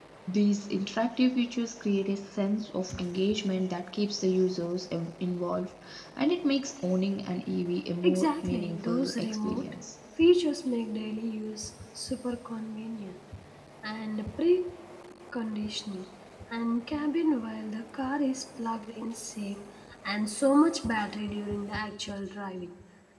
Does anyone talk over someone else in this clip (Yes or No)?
Yes